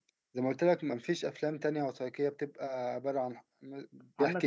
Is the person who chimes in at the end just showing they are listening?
No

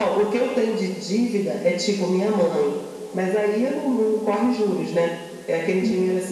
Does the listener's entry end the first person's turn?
No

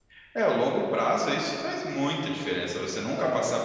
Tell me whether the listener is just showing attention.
Yes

